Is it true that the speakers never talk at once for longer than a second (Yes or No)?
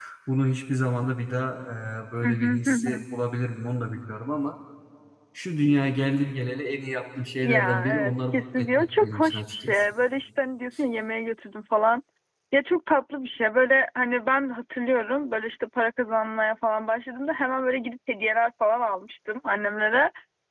No